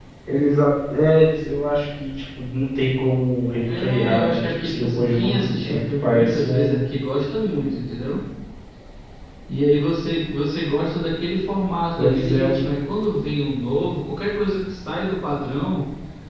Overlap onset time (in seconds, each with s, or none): 3.8 s